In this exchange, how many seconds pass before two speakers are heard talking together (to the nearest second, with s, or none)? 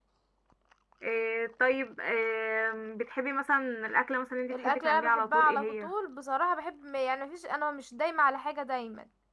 5 s